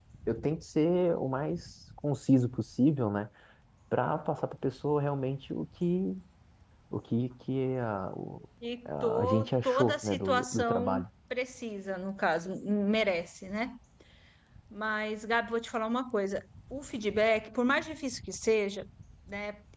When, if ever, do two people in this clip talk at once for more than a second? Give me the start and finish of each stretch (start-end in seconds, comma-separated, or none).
8.8-11.1